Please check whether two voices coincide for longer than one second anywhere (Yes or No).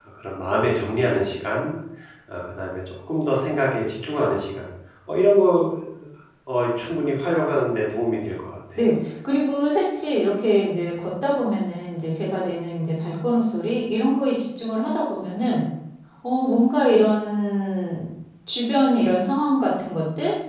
No